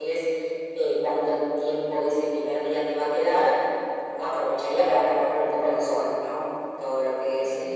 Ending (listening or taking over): listening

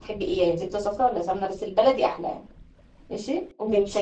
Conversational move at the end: listening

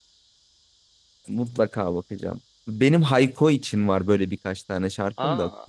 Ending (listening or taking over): listening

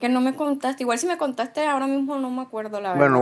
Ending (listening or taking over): taking over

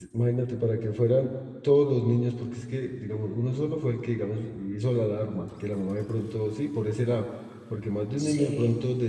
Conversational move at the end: listening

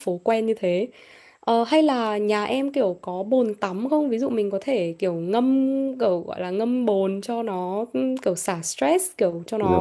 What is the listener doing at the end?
listening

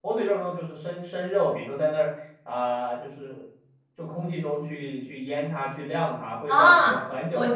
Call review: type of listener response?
taking over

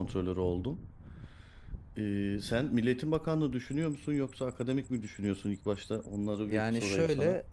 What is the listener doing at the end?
taking over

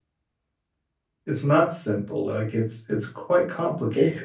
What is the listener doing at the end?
taking over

